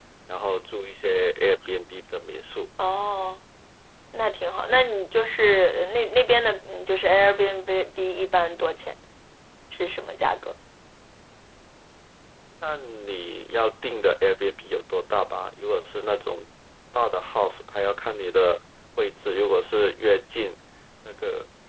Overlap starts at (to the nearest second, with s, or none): none